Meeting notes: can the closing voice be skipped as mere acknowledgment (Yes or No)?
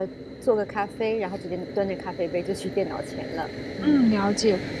No